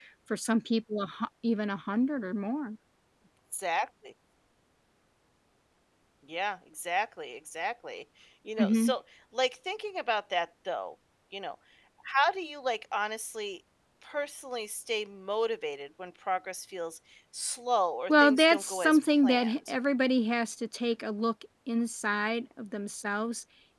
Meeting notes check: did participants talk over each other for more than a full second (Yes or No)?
Yes